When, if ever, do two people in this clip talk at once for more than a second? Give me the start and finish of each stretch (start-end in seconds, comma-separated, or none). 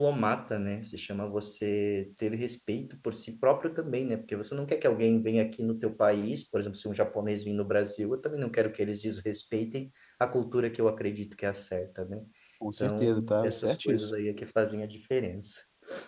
12.8-14.1